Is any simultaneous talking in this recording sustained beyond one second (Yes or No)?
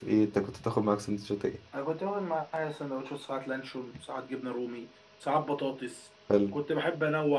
No